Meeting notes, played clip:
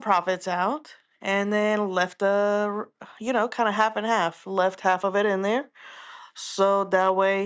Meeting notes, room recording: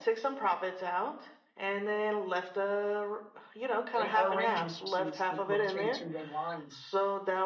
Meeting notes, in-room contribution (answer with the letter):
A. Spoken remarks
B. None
A